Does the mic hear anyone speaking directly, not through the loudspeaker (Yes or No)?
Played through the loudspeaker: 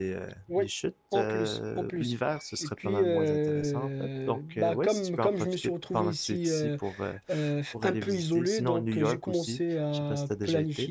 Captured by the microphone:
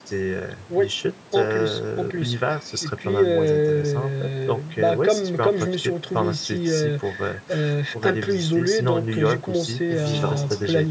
Yes